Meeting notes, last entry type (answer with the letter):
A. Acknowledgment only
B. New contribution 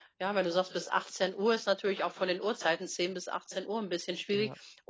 A